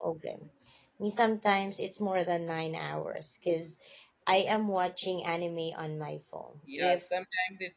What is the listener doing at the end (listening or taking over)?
taking over